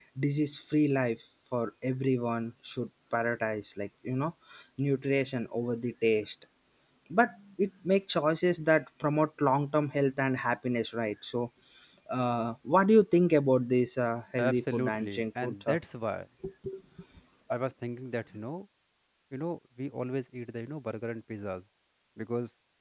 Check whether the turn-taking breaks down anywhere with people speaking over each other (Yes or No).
Yes